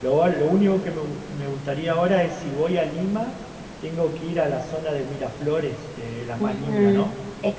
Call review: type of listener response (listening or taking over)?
taking over